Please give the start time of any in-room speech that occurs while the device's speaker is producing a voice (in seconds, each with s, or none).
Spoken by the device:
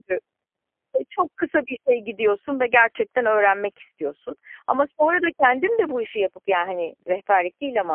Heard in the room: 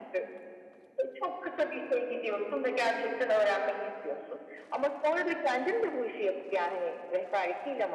none